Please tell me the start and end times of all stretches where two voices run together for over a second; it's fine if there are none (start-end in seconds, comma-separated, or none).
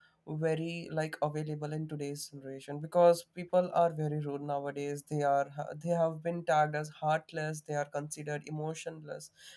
none